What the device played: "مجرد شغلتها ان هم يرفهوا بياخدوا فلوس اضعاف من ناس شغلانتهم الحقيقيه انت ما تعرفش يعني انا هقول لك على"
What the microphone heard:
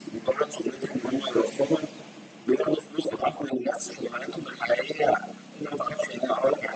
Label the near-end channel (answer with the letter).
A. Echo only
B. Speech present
A